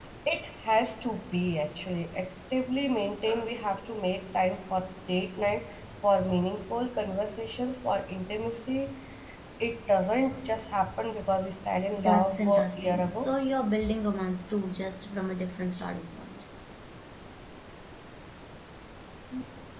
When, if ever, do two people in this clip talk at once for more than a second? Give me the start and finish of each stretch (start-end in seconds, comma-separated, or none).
11.9-13.3